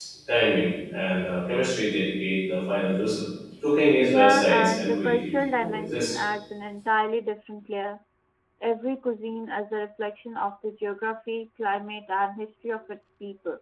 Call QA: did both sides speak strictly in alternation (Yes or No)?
No